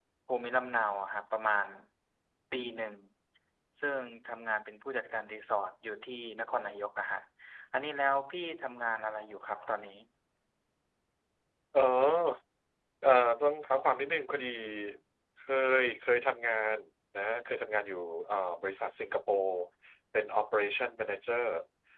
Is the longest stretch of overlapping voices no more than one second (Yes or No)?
Yes